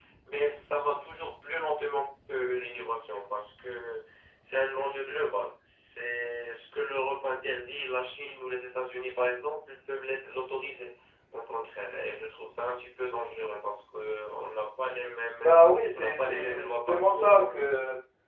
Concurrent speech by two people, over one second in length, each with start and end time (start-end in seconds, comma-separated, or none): 15.9-17.5